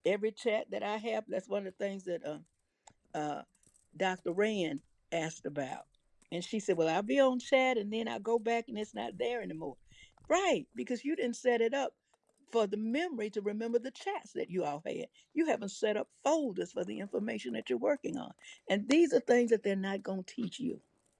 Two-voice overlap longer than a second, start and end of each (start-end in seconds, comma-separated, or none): none